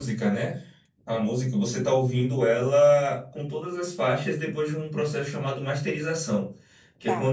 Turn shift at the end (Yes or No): No